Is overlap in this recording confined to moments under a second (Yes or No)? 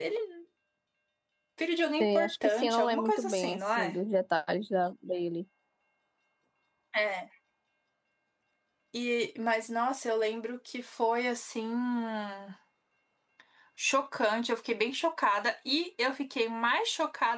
No